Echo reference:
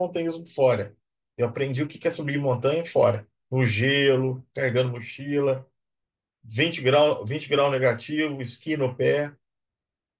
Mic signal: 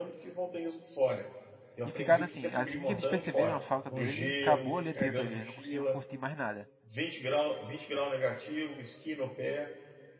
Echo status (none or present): present